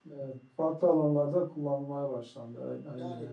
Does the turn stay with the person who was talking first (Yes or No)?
No